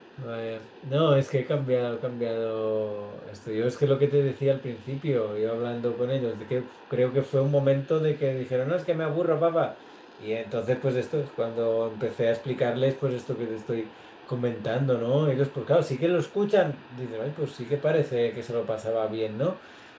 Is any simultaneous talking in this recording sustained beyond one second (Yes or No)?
No